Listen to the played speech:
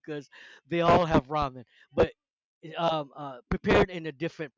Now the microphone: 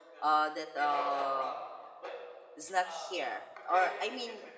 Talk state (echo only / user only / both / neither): both